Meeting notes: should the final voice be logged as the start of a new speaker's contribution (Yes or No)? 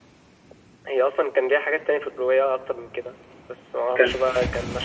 No